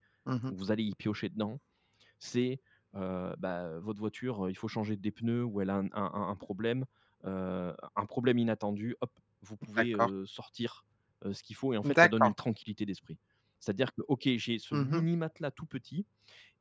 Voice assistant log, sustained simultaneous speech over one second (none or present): none